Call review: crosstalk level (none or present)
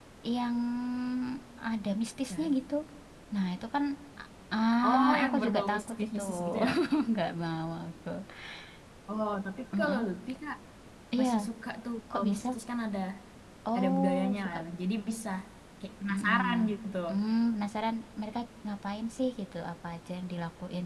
present